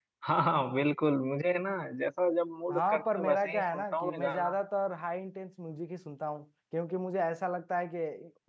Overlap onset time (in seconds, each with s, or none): 2.7 s